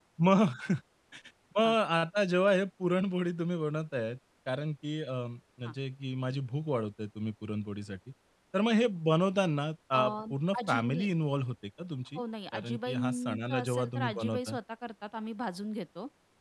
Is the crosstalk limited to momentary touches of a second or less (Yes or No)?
No